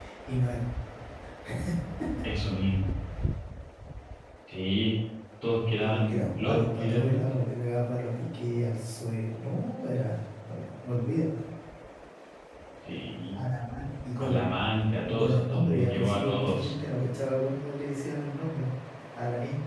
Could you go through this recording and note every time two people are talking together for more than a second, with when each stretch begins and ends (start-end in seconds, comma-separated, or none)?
5.8-7.3, 15.1-16.7